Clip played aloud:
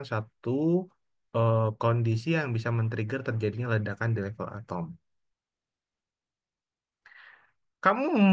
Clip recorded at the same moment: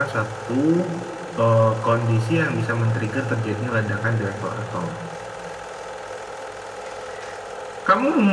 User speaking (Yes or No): No